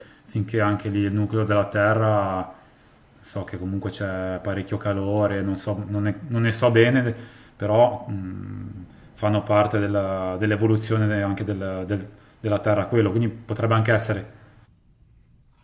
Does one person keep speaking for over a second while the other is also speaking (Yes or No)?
No